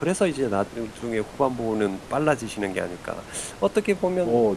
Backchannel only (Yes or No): Yes